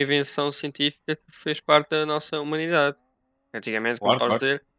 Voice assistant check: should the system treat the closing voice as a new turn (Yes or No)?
No